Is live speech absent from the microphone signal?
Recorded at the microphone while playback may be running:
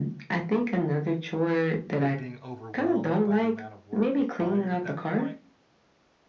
No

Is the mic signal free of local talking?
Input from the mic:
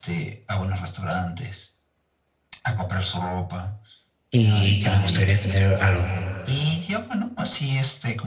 No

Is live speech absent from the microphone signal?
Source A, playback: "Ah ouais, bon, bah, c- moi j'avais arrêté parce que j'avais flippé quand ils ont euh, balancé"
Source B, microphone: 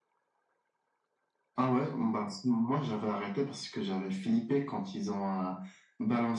Yes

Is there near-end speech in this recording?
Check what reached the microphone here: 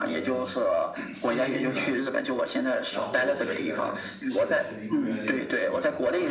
Yes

